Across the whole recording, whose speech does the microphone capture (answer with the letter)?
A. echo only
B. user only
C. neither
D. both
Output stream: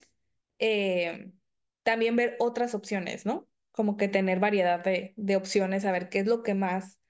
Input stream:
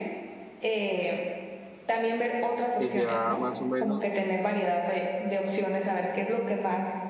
D